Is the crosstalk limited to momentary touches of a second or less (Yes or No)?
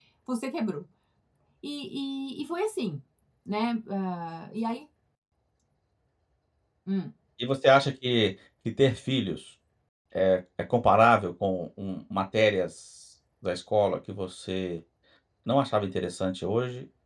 Yes